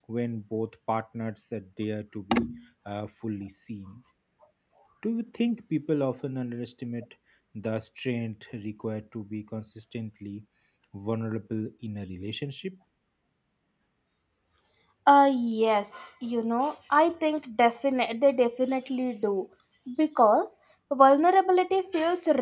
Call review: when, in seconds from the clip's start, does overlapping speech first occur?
none

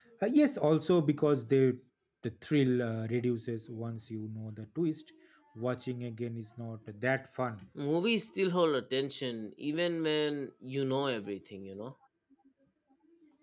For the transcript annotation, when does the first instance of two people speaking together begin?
none

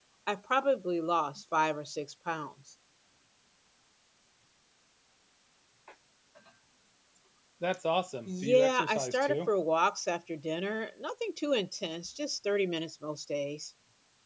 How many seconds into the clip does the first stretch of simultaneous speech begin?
8.3 s

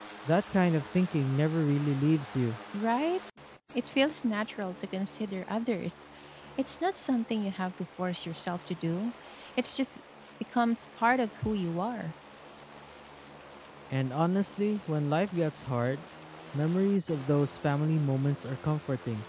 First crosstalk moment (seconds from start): none

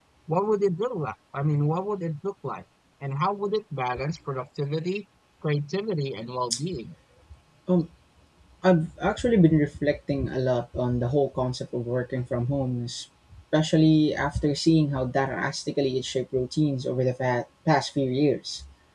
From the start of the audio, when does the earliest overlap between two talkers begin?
none

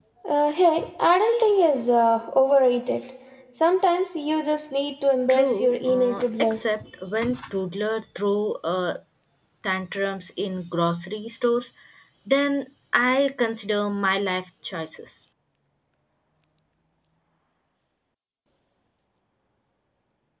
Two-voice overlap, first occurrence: 5.3 s

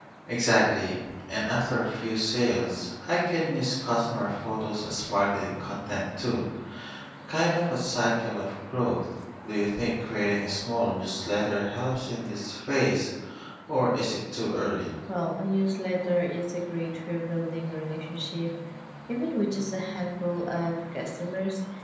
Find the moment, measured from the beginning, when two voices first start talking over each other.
none

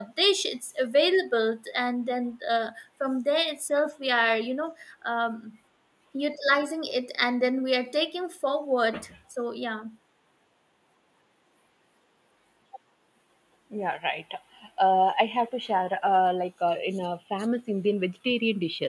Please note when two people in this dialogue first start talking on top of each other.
none

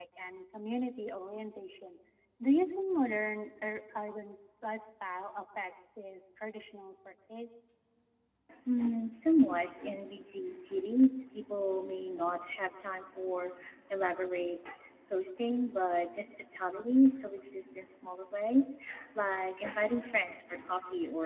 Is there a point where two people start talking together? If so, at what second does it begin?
none

